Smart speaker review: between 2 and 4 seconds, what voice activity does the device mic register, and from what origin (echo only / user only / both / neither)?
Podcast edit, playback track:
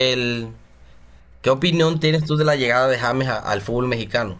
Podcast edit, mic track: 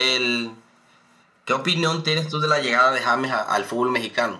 echo only